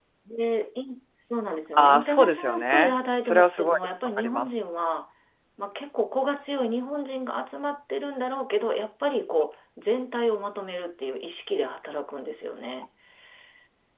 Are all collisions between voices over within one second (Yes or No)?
No